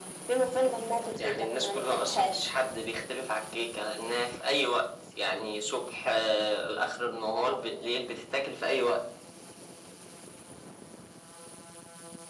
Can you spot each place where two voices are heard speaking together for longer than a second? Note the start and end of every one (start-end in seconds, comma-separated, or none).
1.2-2.5